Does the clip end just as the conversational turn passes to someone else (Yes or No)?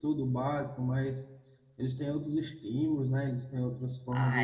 Yes